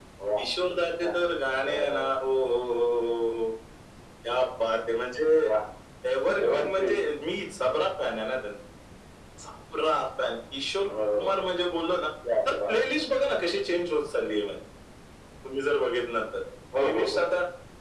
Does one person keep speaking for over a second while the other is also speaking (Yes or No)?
No